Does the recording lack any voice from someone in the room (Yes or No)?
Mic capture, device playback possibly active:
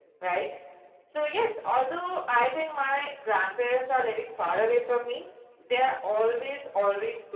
Yes